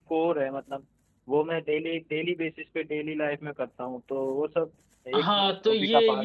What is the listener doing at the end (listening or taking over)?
taking over